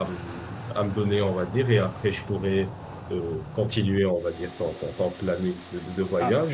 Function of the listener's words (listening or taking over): listening